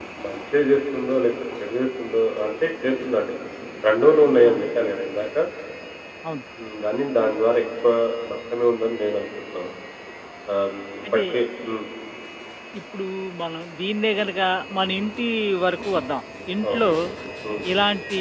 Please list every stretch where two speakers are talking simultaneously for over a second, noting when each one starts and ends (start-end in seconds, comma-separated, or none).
none